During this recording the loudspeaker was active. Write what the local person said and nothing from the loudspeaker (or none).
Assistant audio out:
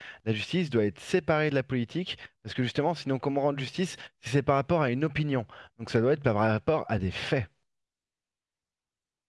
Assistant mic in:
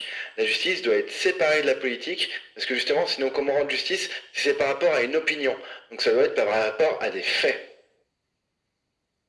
none